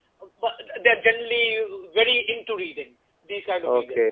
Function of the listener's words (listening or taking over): taking over